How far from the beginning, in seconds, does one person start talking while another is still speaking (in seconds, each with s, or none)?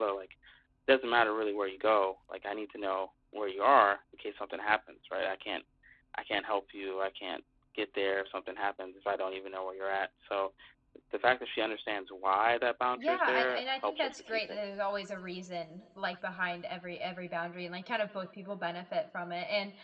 12.9 s